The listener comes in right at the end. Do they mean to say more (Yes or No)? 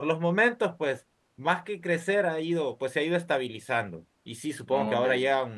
No